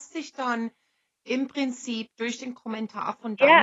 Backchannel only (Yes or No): No